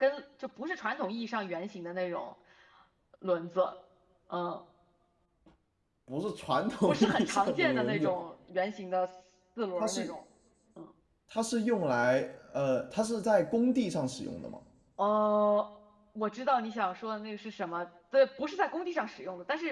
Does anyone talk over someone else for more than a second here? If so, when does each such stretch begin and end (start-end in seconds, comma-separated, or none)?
6.9-8.1